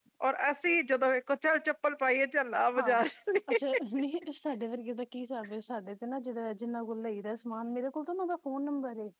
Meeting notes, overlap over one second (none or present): none